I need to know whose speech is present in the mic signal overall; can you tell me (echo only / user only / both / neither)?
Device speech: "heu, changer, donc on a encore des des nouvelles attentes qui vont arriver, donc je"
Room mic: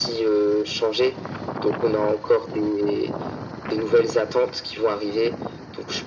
echo only